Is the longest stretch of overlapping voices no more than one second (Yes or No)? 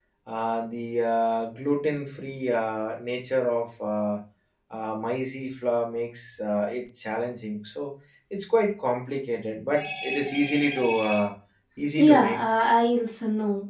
Yes